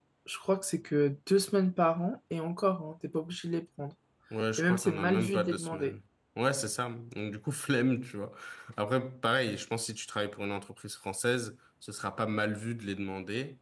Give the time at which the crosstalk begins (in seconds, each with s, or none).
4.6 s